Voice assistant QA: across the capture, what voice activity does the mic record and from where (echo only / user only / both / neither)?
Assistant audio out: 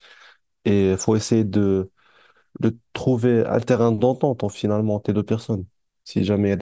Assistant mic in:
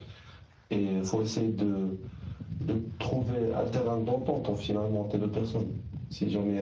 echo only